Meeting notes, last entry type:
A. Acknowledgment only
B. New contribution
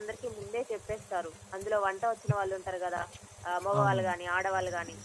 A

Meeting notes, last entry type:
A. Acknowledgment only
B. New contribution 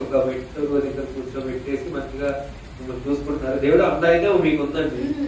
B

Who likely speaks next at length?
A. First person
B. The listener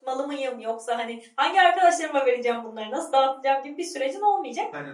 A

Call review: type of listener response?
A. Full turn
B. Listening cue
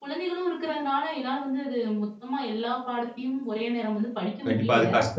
A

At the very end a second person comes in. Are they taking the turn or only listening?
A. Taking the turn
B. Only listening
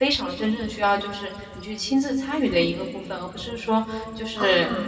B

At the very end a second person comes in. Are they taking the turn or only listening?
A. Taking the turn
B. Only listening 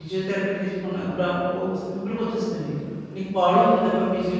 B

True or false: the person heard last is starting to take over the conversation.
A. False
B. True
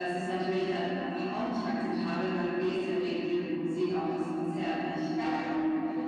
B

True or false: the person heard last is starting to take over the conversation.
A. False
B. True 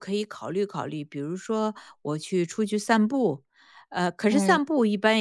A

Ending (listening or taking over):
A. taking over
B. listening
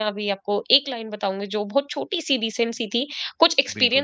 B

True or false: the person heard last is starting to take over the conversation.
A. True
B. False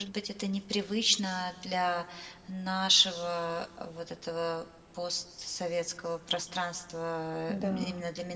B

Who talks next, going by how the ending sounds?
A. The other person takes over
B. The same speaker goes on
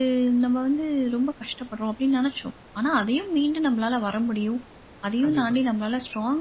B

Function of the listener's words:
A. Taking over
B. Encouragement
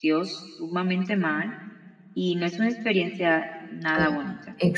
A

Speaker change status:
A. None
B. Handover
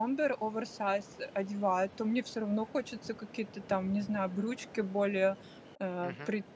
A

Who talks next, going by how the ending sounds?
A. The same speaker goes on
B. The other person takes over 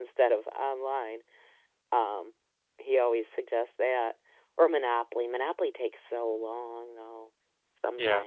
B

